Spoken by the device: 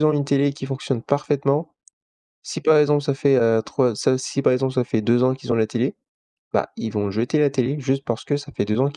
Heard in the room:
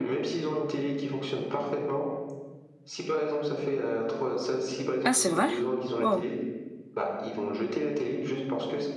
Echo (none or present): present